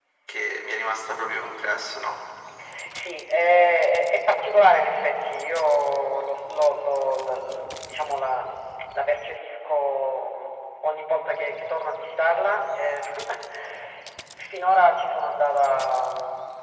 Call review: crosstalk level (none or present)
none